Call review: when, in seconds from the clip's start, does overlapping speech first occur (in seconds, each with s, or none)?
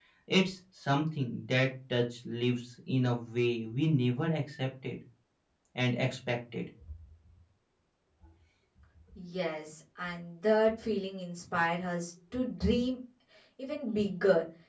none